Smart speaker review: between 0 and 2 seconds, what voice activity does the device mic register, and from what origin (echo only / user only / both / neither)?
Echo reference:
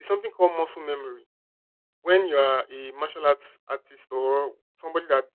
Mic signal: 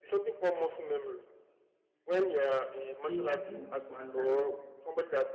echo only